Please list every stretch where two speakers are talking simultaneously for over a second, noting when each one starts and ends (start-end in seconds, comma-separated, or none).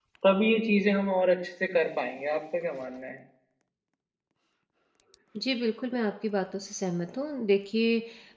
none